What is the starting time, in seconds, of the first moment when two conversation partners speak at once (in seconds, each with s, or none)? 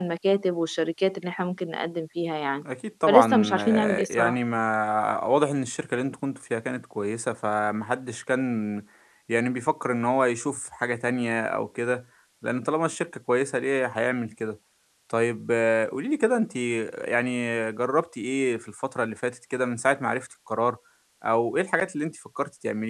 3.1 s